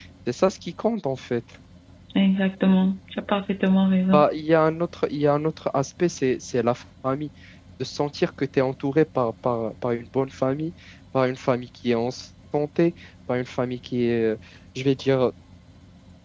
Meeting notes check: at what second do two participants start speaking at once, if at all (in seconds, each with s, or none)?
none